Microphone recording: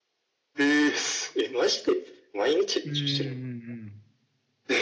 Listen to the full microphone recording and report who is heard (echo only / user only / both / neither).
both